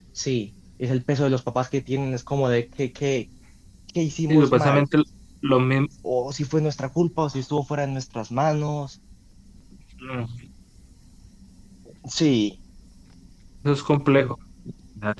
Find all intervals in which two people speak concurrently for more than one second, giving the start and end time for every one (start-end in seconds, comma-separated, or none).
none